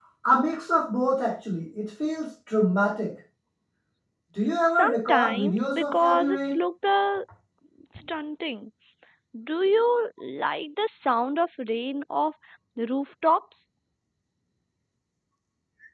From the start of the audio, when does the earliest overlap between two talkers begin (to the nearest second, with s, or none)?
5 s